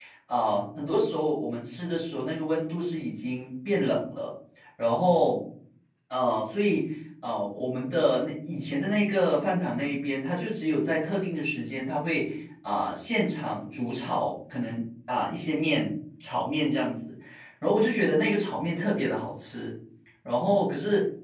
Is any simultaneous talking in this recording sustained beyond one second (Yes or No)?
No